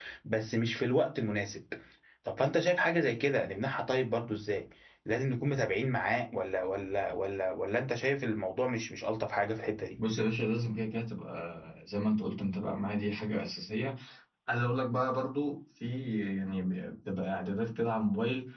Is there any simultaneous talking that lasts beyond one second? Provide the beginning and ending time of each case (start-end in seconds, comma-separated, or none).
none